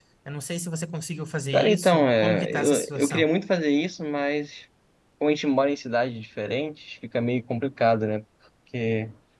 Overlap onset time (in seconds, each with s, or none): 1.5 s